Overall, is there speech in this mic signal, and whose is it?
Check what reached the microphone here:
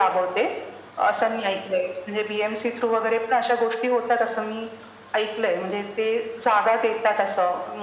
echo only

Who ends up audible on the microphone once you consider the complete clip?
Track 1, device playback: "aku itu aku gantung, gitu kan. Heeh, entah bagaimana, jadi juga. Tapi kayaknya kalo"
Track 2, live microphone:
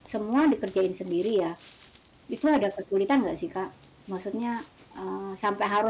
user only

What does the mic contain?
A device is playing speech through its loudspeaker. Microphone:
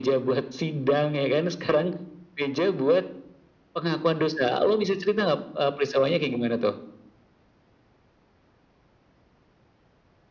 echo only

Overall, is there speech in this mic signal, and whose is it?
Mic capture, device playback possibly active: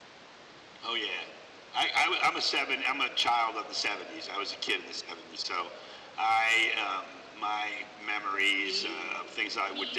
both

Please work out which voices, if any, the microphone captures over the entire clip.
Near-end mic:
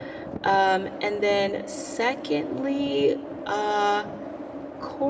user only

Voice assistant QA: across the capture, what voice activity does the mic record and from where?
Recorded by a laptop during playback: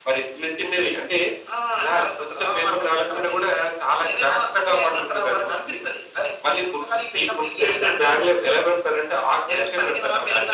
echo only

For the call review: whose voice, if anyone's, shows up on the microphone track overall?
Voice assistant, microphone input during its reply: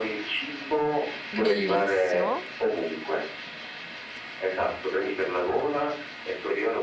both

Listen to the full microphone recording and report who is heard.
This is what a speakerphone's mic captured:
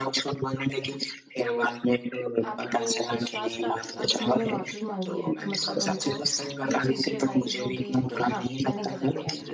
both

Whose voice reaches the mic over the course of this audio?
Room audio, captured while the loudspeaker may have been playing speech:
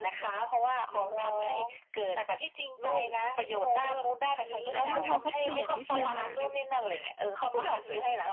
both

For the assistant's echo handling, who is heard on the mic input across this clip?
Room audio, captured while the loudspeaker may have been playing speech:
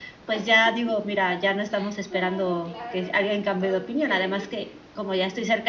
both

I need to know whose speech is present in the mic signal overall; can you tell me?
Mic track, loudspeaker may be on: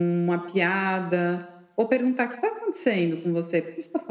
echo only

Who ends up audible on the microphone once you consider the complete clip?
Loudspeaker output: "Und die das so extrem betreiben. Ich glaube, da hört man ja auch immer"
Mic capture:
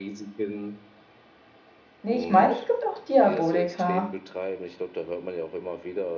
both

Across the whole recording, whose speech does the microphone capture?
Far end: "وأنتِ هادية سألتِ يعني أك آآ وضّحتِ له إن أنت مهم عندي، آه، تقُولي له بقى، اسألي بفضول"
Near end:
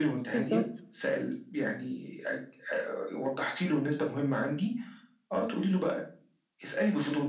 both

